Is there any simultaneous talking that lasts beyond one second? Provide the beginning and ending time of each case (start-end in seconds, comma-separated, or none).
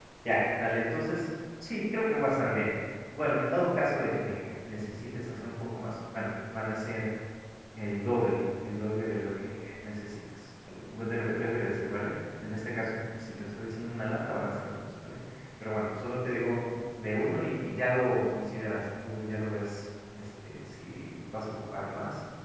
none